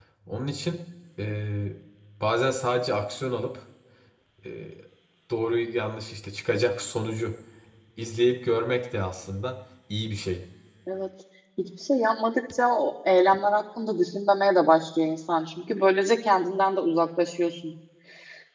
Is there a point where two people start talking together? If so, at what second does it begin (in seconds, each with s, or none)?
none